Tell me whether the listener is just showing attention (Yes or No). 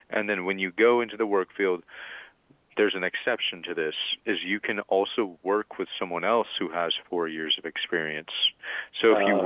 Yes